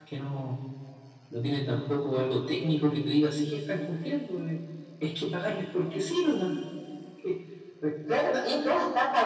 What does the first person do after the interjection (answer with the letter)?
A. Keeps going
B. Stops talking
B